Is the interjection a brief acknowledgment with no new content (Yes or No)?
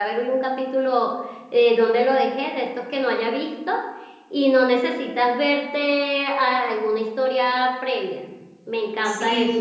No